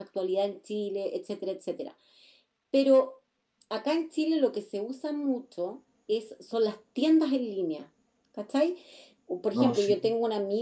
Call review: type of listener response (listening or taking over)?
listening